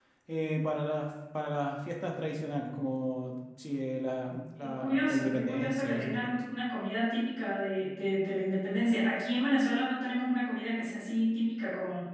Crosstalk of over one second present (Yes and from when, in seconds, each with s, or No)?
Yes, from 4.6 s